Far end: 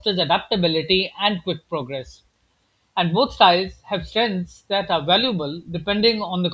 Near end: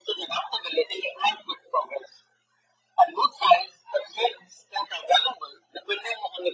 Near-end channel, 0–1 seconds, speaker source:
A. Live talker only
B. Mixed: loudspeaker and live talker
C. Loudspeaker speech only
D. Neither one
C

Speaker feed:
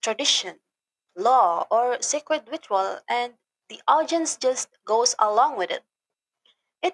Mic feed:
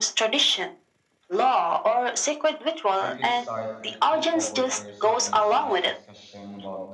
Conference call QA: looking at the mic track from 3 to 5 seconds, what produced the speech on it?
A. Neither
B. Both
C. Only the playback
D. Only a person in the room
B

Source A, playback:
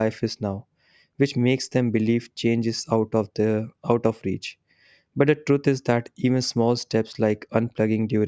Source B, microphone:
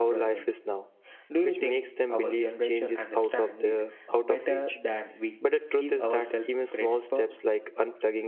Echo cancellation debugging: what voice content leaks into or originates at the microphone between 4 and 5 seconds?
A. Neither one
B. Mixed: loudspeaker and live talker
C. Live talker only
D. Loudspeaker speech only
B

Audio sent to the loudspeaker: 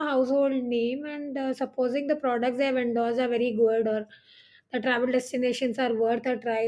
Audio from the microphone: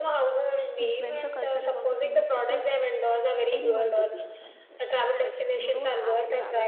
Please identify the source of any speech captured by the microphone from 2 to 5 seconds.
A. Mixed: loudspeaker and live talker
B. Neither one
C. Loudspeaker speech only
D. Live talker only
A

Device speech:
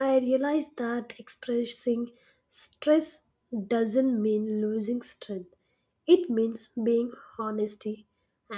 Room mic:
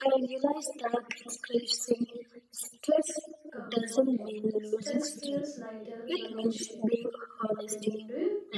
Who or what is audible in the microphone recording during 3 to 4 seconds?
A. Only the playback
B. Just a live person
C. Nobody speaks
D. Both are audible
D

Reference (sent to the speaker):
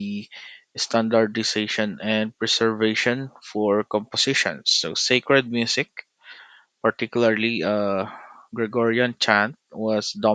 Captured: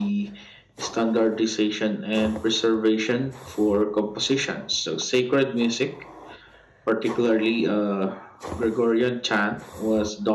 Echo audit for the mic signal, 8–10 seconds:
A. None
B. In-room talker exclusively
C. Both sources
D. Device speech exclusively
D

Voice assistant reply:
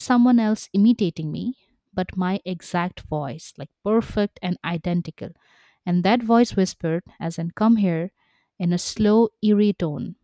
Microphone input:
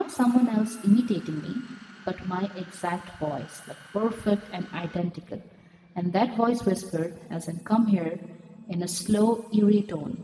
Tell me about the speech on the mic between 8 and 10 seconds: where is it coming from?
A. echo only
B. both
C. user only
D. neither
A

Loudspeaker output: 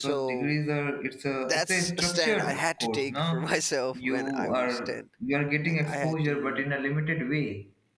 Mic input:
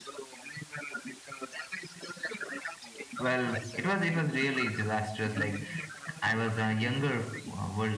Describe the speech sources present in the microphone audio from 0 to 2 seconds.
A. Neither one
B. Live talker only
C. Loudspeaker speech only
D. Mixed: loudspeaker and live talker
C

